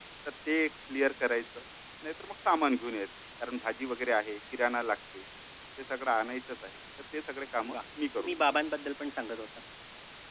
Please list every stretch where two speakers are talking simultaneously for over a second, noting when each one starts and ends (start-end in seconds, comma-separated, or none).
none